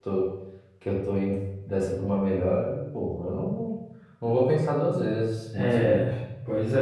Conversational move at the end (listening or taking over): taking over